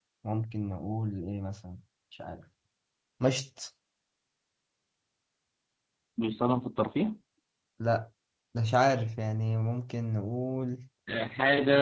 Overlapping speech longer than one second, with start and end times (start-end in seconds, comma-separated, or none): none